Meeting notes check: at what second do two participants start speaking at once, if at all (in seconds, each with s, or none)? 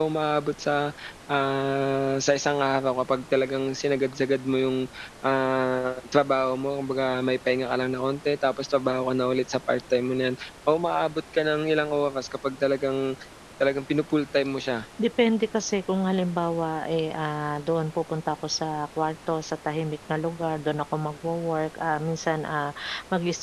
none